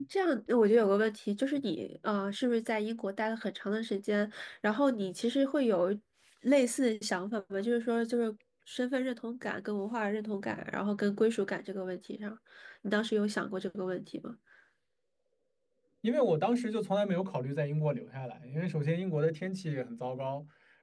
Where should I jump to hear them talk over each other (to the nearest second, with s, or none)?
none